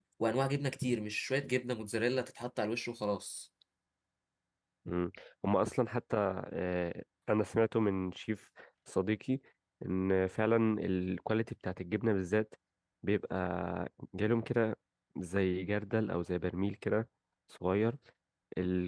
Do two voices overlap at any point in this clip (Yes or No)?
No